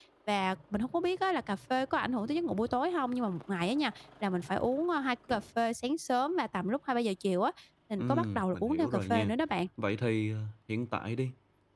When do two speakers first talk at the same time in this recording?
8 s

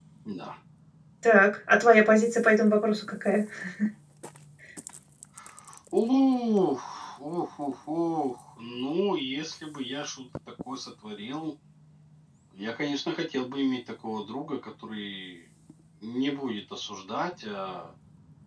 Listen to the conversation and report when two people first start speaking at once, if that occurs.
none

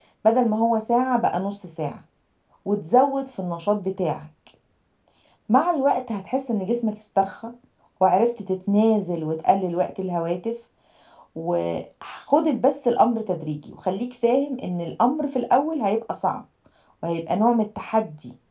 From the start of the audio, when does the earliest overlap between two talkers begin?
none

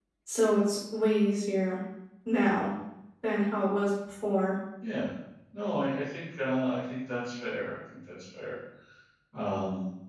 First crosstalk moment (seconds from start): none

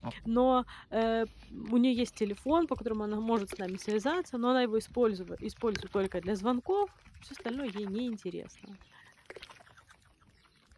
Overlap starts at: none

